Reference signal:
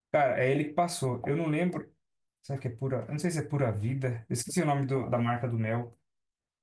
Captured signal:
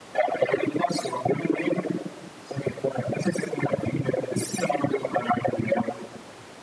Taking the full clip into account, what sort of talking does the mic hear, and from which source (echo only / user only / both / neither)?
echo only